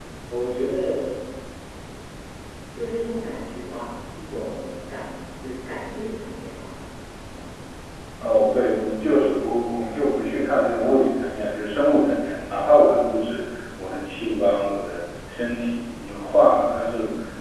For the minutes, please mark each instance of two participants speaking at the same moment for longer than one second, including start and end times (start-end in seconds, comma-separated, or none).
none